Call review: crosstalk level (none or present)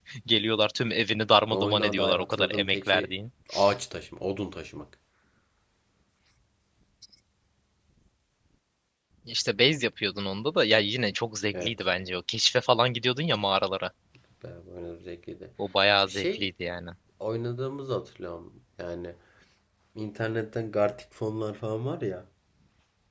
present